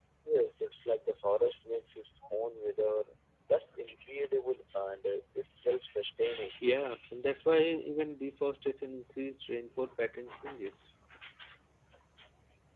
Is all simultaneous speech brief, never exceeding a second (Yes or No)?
Yes